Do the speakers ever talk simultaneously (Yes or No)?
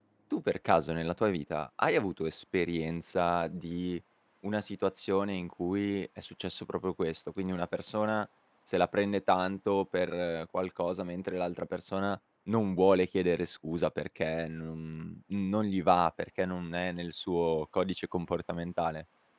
No